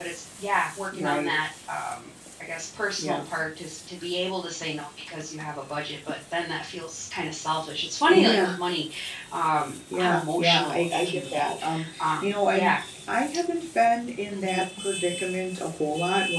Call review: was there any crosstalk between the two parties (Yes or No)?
Yes